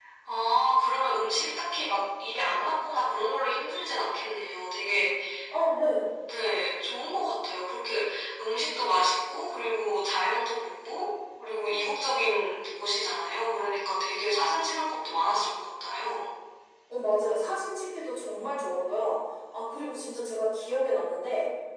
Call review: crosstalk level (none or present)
none